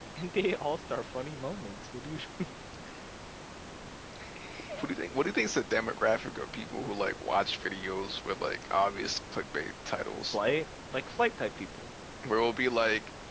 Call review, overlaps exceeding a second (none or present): none